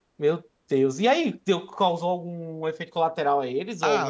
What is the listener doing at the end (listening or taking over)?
taking over